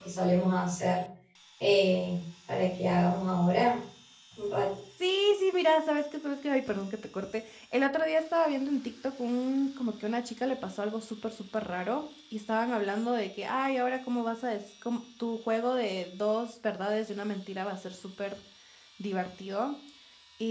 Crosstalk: none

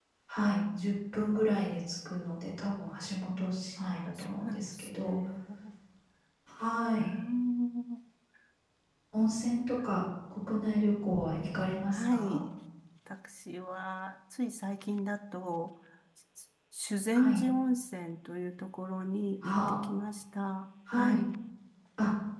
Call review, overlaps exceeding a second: present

